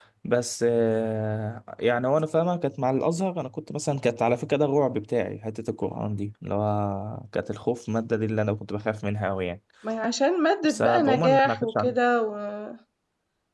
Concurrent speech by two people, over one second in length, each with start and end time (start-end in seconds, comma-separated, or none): 10.6-12.0